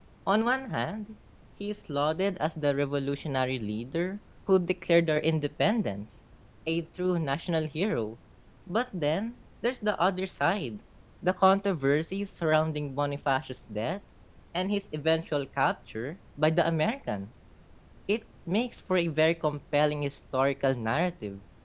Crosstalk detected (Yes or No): No